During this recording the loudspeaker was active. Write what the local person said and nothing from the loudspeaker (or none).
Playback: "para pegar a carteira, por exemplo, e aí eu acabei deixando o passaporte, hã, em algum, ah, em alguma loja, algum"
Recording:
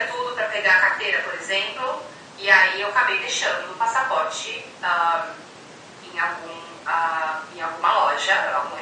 none